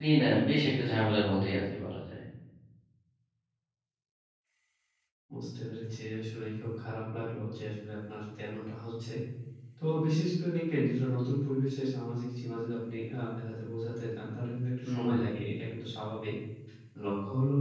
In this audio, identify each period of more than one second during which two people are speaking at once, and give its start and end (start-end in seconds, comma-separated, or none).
none